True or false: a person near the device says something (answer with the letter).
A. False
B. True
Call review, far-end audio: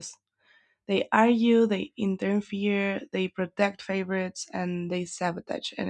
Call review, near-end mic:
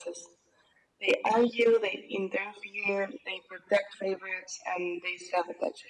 A